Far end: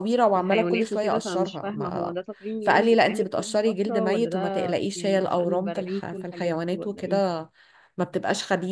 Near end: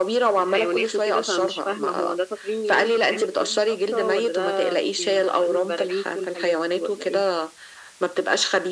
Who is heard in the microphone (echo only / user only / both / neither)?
echo only